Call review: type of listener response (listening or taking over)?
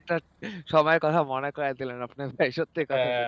taking over